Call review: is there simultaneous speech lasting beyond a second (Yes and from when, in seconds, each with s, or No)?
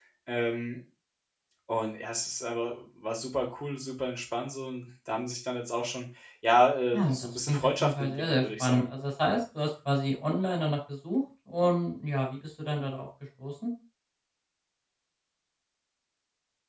Yes, from 6.9 s